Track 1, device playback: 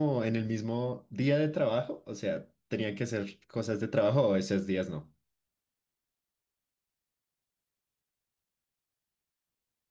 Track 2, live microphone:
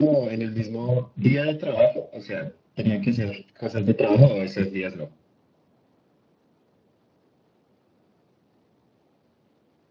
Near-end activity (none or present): none